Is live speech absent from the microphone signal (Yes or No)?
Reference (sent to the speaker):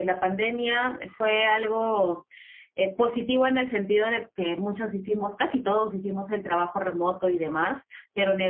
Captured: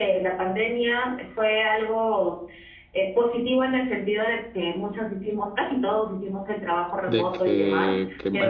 No